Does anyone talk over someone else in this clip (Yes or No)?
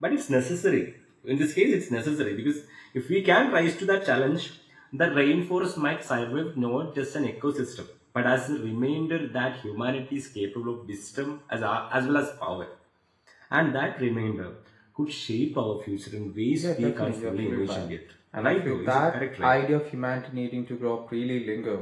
Yes